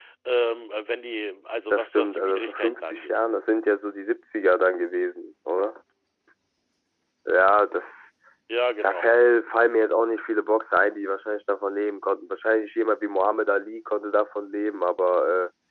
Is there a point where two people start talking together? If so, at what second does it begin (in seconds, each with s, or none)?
1.7 s